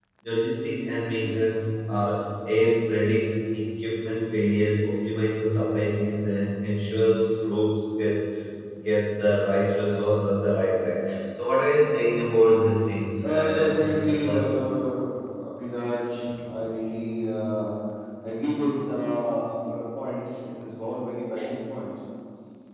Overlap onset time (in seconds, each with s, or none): 13.2 s